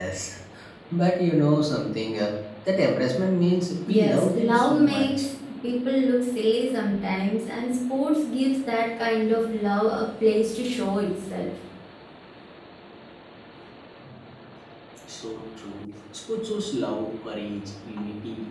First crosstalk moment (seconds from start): 4 s

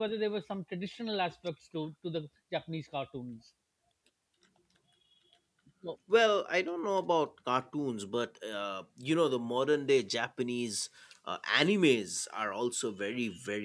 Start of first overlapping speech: none

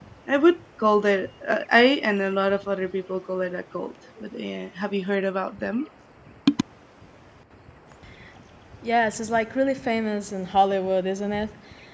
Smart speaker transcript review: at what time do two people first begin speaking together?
none

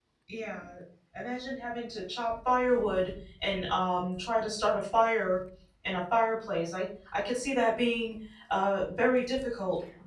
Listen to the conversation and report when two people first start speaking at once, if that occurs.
none

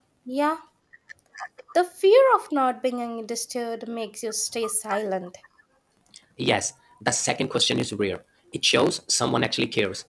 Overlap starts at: none

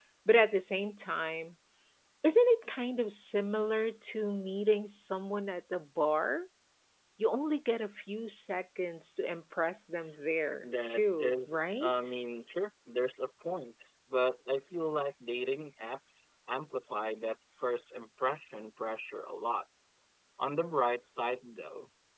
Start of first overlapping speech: 11 s

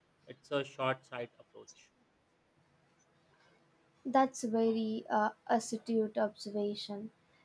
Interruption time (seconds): none

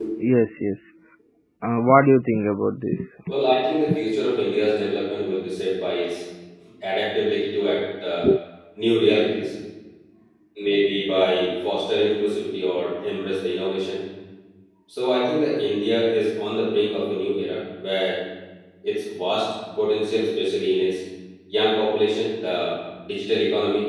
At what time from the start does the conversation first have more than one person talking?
none

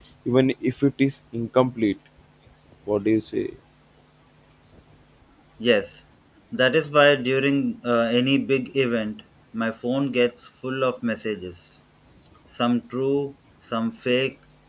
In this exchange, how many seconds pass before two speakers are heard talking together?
none

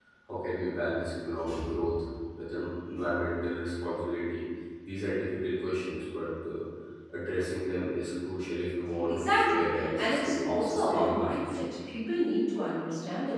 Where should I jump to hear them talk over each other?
9 s

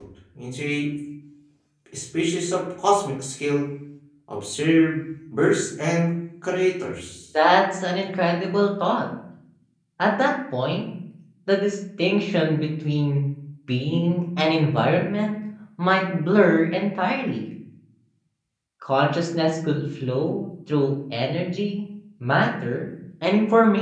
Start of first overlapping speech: none

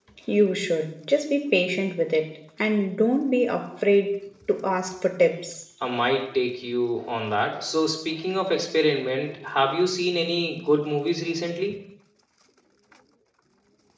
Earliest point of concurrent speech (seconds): none

